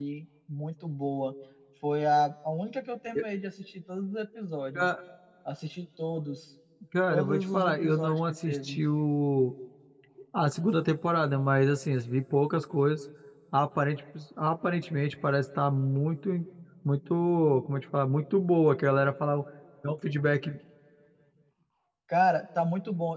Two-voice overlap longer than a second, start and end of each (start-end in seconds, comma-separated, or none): 7.1-8.8